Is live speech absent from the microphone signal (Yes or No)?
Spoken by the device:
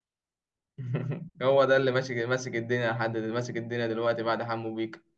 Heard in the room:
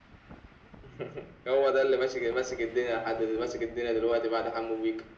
Yes